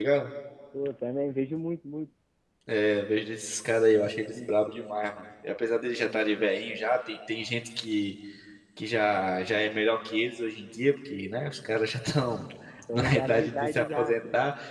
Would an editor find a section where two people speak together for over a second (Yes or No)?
Yes